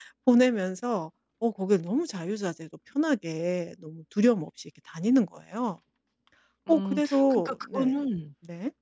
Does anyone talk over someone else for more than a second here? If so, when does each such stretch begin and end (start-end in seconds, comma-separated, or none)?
6.7-7.9